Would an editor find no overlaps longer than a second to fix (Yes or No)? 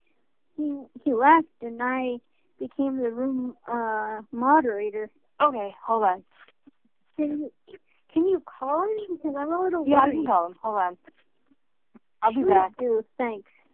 Yes